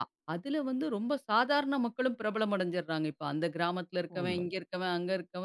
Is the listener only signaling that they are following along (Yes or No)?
Yes